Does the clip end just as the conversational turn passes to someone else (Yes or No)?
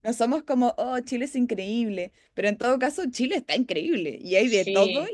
No